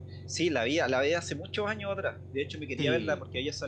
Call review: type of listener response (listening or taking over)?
listening